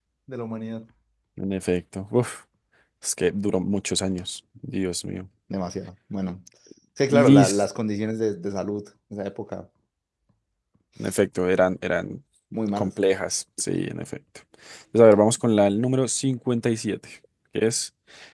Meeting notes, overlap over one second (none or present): none